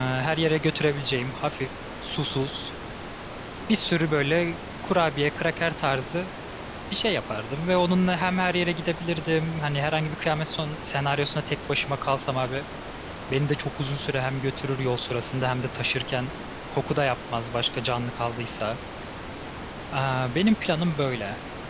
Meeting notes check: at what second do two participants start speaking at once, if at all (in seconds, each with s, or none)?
none